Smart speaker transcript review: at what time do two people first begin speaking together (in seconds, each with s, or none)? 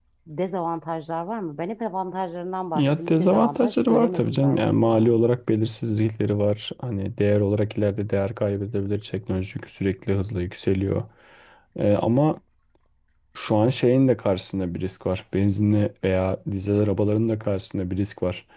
2.8 s